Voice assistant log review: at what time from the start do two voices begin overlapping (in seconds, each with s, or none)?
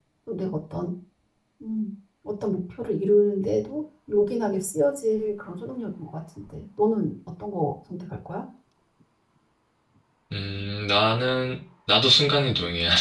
none